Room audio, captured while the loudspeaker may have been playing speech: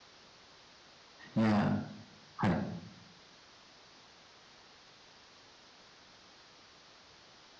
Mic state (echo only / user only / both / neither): user only